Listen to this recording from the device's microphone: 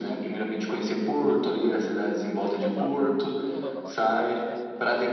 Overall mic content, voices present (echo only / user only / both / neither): both